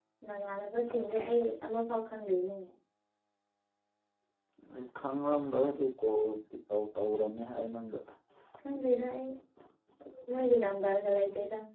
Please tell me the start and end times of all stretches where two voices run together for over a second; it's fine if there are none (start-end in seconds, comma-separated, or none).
none